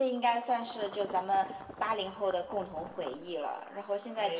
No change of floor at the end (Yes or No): Yes